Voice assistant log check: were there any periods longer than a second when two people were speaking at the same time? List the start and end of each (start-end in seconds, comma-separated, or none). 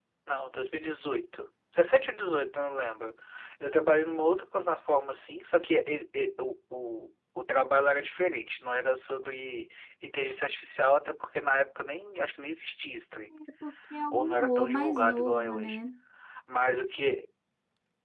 14.1-15.8